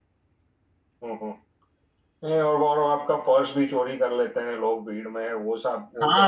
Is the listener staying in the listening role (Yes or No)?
No